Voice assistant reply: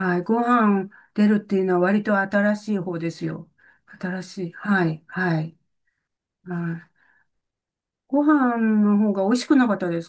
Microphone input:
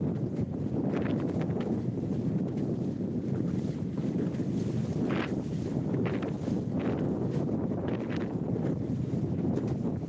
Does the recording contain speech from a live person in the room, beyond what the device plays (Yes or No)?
No